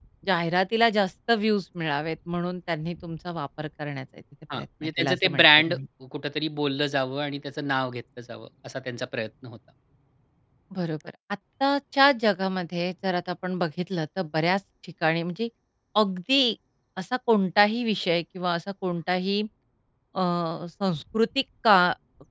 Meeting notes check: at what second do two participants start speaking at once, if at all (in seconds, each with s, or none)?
4.5 s